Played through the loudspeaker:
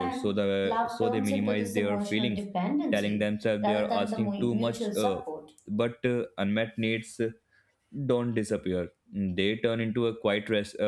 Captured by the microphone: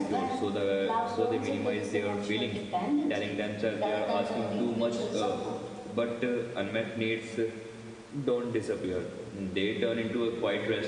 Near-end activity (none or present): none